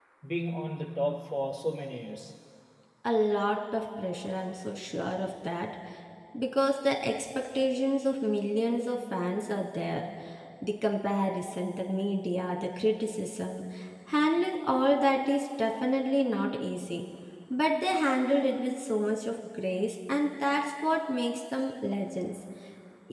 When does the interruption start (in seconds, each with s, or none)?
none